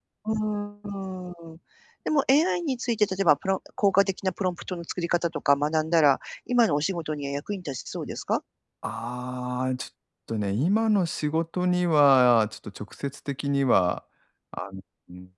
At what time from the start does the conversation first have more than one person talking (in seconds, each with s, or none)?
none